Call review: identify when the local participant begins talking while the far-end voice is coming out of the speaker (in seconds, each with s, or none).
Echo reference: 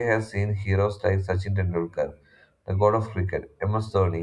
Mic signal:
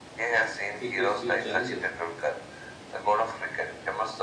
0.8 s